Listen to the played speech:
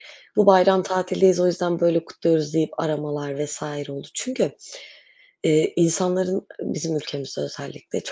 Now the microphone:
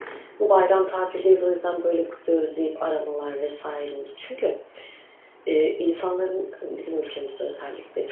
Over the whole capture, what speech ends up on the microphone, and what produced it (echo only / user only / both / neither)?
echo only